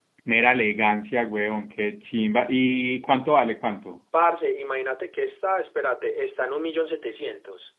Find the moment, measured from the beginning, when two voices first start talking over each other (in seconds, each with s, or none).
none